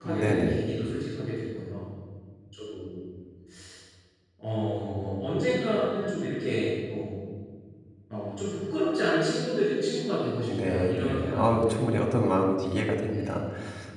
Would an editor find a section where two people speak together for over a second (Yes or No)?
Yes